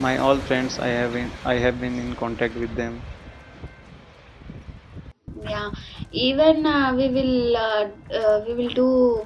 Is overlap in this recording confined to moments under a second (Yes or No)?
Yes